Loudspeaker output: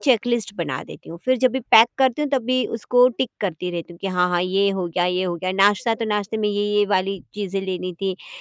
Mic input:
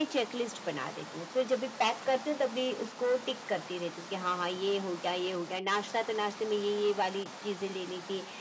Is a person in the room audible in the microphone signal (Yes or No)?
No